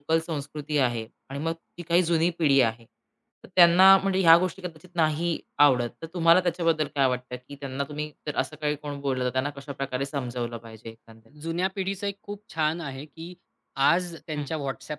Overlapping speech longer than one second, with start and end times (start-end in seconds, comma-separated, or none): none